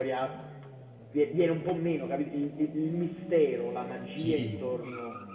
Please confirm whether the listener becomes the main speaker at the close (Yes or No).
No